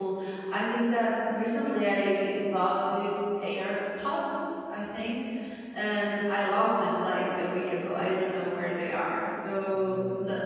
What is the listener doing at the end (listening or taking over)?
listening